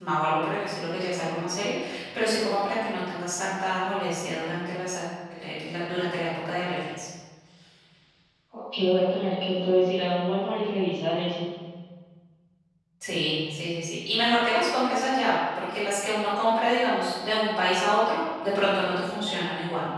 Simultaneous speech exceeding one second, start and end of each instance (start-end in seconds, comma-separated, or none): none